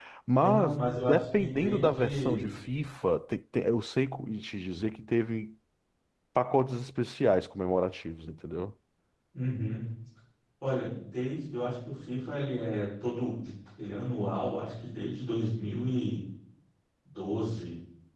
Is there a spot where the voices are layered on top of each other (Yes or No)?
Yes